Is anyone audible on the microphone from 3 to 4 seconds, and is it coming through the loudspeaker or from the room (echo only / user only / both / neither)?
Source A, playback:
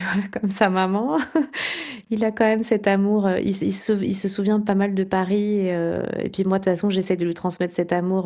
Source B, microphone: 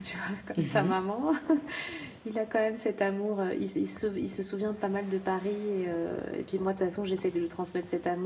echo only